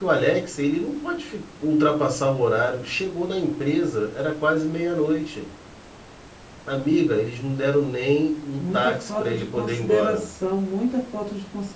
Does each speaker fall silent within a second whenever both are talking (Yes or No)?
No